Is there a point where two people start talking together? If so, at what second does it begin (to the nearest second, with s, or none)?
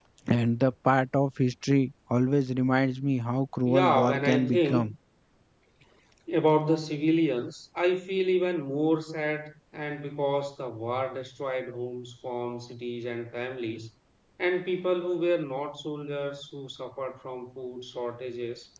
4 s